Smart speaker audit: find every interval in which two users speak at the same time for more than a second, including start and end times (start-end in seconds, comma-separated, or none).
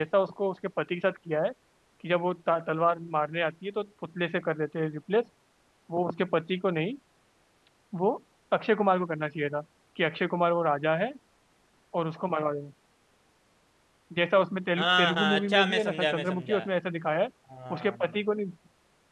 14.8-16.6